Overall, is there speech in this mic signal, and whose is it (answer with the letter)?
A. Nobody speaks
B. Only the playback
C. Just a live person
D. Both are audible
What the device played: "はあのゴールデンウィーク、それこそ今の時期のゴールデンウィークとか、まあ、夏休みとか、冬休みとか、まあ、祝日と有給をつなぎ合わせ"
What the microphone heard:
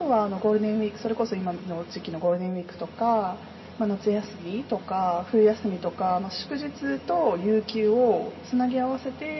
B